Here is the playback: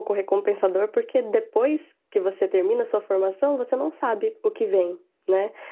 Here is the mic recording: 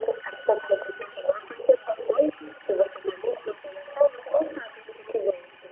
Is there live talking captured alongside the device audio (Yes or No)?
No